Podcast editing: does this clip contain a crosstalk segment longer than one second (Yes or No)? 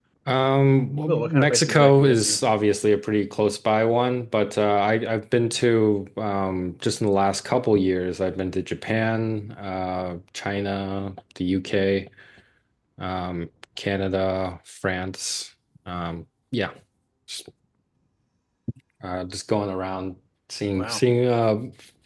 Yes